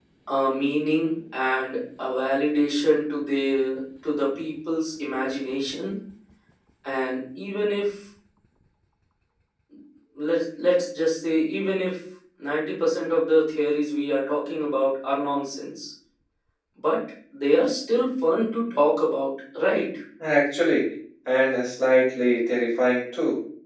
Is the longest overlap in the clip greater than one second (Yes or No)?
No